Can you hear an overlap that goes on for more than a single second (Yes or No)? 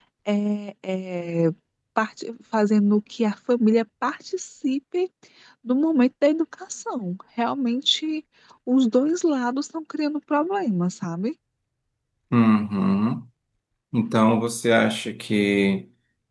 No